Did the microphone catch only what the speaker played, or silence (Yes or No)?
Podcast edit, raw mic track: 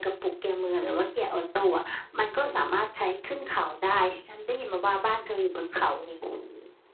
Yes